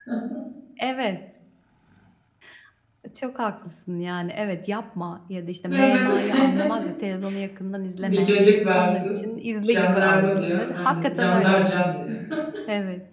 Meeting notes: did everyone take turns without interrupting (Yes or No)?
No